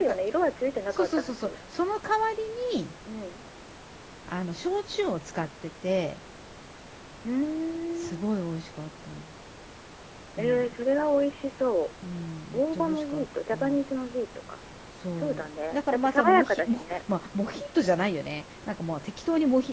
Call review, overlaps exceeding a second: present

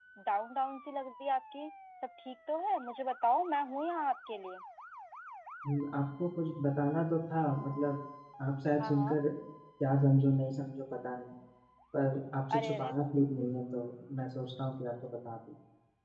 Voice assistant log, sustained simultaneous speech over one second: none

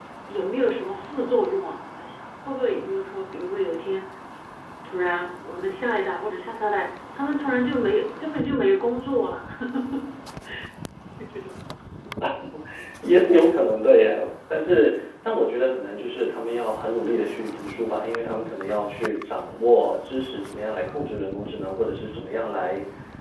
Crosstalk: none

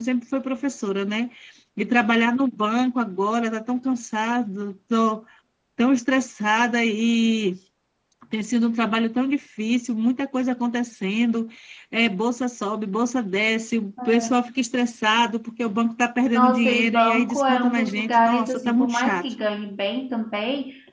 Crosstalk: present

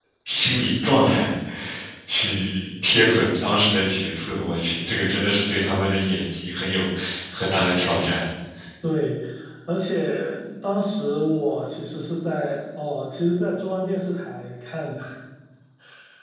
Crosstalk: none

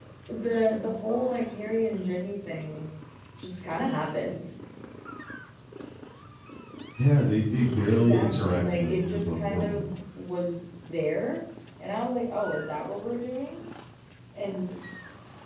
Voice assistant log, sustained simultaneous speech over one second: present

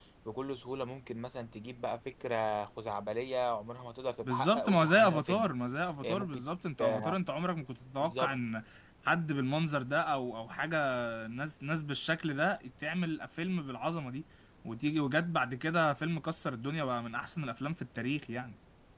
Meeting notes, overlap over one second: present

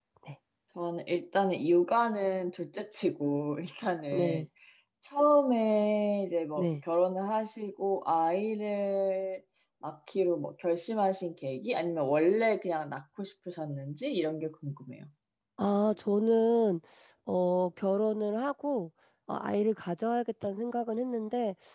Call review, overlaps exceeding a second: none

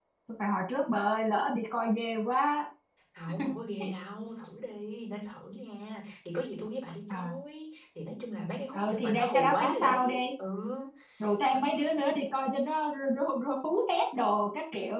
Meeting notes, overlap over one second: present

